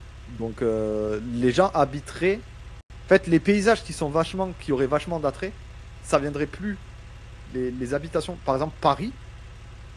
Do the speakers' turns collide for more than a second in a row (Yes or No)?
No